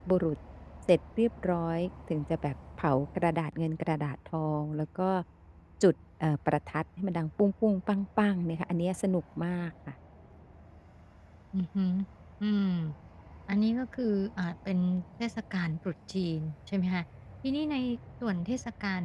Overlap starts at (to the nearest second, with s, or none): none